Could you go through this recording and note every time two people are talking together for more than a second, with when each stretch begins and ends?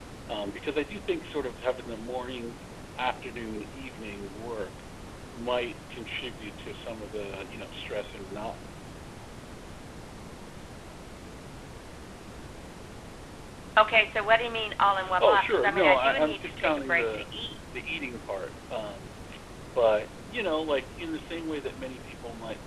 15.2-17.2

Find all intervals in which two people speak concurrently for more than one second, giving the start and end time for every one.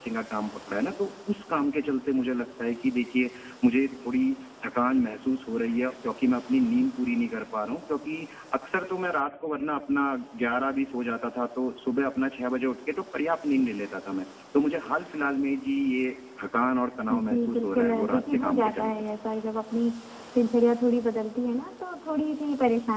17.1-19.0

